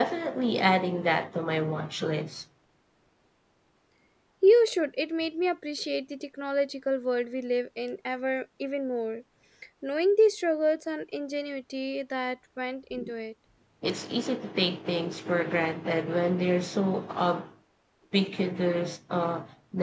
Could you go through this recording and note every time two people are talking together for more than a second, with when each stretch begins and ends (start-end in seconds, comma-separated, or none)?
none